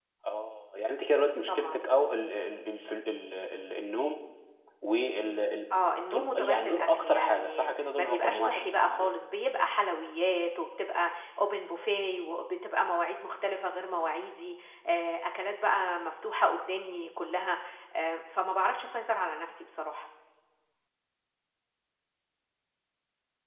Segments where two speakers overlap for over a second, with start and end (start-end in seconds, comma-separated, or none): 6.1-9.1